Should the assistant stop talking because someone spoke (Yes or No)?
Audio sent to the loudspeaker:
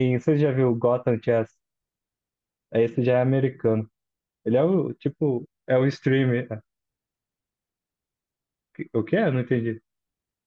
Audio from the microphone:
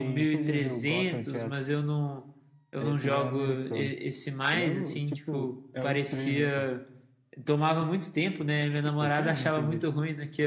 Yes